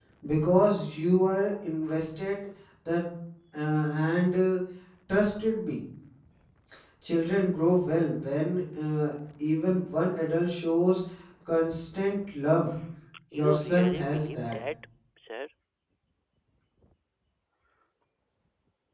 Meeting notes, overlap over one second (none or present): present